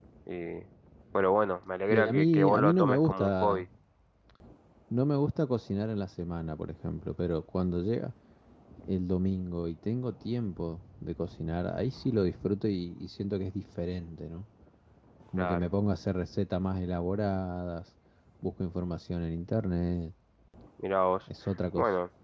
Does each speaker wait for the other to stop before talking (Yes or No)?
No